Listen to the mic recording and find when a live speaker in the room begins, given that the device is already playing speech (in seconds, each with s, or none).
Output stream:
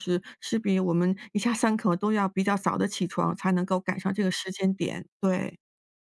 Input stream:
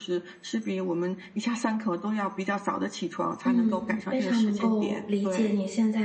3.5 s